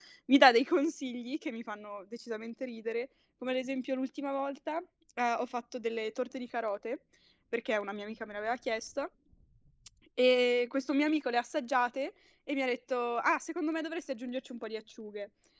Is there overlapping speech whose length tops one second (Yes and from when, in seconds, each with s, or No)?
No